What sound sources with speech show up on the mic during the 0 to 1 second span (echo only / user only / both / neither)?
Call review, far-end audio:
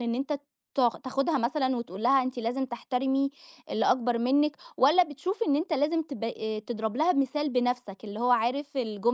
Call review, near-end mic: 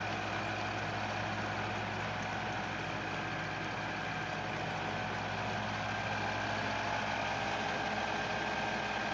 neither